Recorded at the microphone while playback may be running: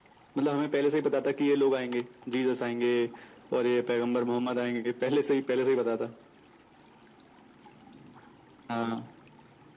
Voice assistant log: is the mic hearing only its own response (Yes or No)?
Yes